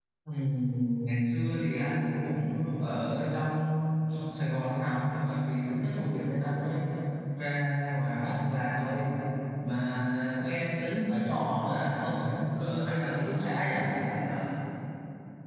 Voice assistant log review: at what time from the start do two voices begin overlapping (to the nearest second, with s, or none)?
13 s